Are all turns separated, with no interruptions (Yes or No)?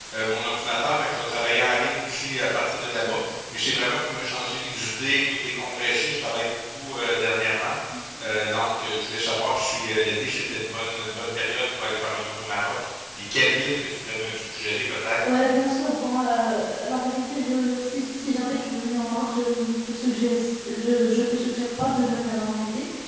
Yes